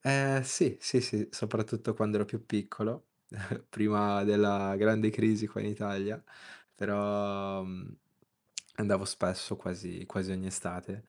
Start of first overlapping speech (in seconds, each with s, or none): none